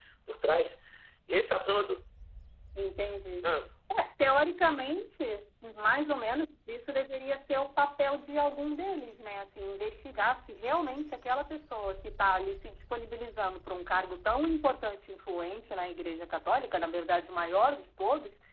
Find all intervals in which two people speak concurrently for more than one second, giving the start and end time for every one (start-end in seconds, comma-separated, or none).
none